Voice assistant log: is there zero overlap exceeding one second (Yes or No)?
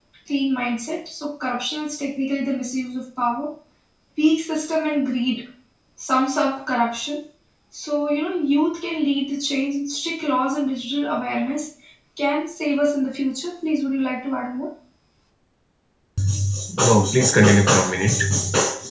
Yes